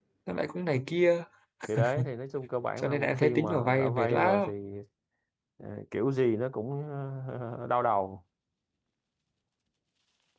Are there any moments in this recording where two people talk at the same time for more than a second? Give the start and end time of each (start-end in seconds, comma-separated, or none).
2.8-4.5